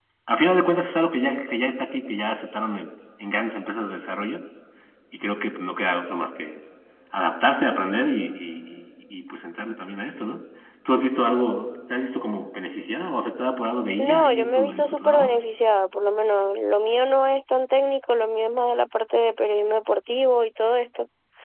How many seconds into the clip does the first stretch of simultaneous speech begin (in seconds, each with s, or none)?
14.0 s